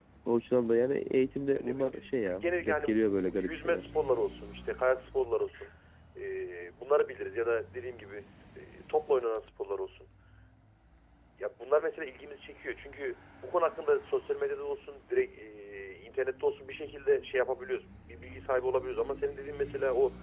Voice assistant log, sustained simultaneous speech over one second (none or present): present